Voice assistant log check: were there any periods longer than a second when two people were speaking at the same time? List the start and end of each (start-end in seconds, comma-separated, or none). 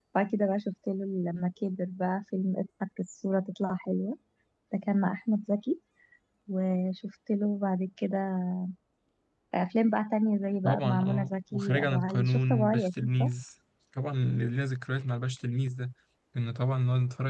10.6-13.3